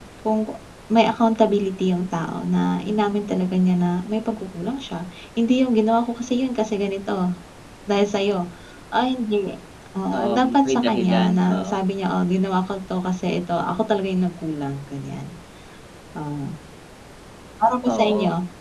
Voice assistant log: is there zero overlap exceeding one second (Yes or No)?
No